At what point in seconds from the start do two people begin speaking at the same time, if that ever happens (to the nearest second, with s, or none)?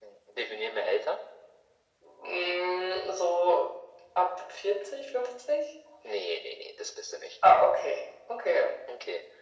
none